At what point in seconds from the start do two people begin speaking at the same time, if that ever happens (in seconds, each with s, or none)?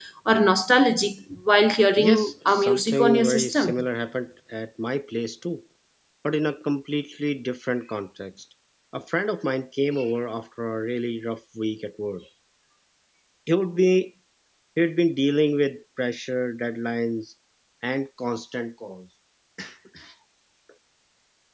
2.0 s